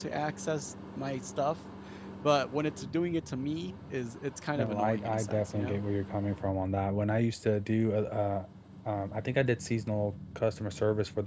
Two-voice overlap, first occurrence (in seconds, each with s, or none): 4.6 s